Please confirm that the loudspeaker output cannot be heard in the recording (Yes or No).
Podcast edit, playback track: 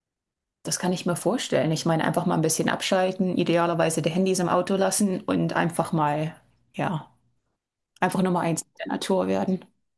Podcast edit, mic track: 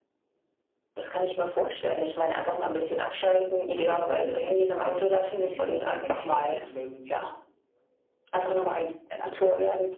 No